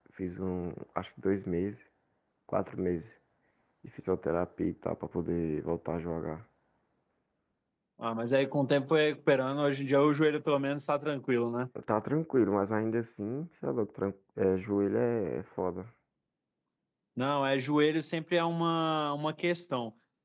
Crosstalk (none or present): none